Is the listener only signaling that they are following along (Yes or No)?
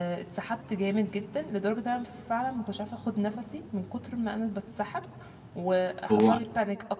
Yes